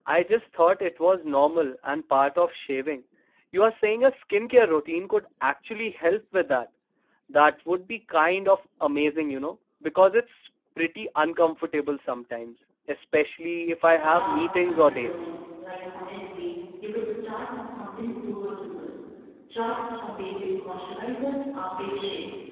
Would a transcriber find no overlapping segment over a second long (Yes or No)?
No